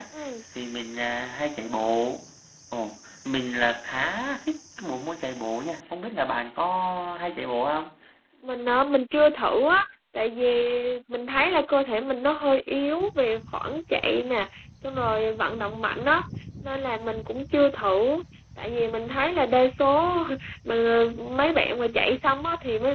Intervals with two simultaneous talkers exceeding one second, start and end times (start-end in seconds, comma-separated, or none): none